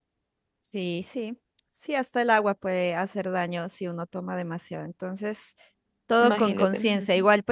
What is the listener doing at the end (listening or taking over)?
listening